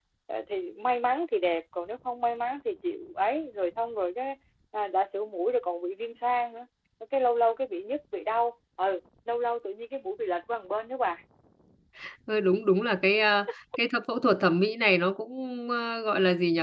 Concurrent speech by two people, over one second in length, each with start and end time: none

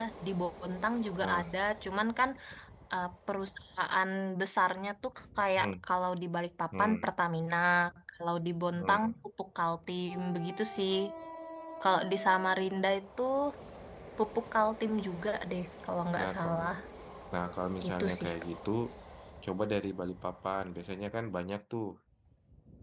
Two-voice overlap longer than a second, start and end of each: none

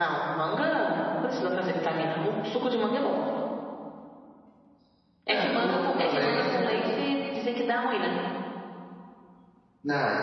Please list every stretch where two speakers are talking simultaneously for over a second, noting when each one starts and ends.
5.3-6.8

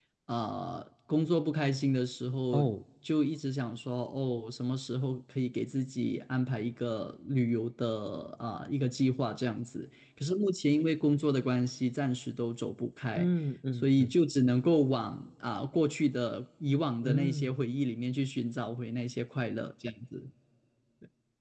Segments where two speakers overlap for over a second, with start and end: none

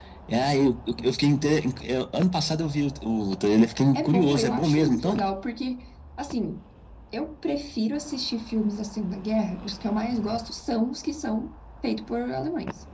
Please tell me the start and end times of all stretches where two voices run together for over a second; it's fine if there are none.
3.9-5.2

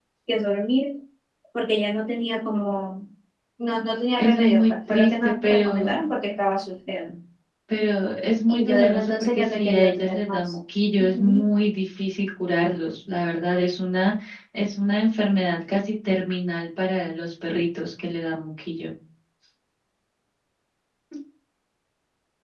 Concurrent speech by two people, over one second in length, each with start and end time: 4.2-5.9, 8.5-10.5

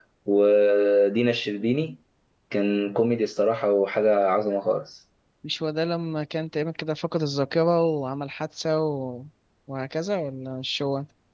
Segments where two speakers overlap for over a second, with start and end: none

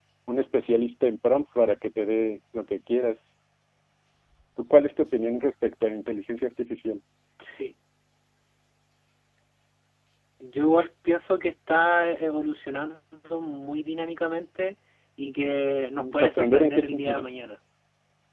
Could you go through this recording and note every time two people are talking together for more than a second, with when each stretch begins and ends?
16.0-17.3

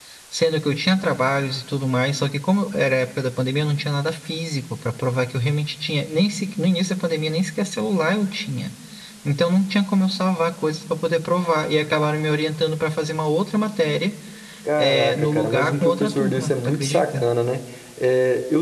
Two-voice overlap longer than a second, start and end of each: 14.8-17.2

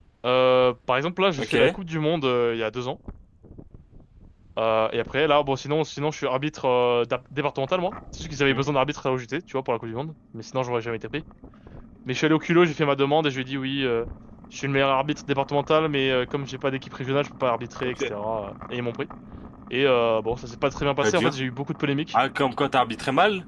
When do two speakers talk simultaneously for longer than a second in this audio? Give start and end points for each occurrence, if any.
none

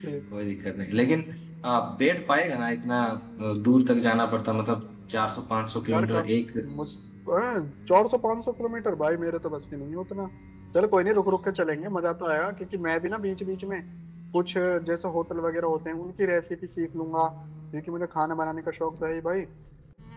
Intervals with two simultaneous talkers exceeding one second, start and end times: none

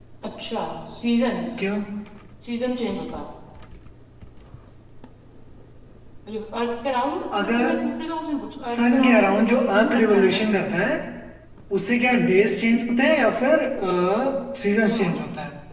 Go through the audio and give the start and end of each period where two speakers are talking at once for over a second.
8.6-10.4

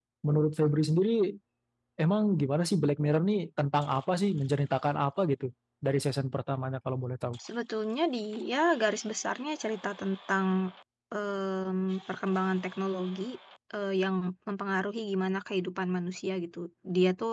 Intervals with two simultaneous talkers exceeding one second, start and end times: none

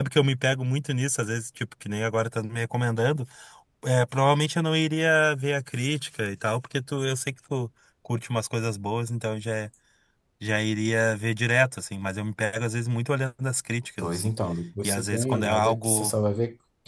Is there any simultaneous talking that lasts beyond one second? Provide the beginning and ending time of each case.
14.8-16.1

